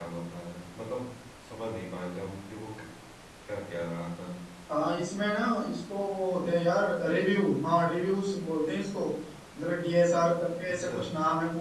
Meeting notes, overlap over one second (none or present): none